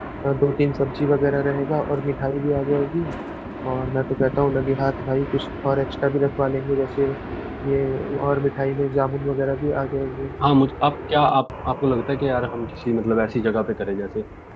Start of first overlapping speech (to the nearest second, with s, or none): none